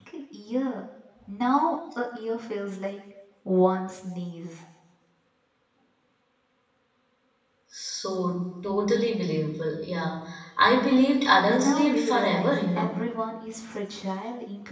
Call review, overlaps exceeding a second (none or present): present